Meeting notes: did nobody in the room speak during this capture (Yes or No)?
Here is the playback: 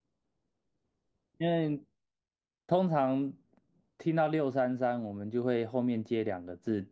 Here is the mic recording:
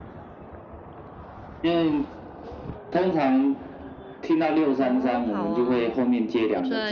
No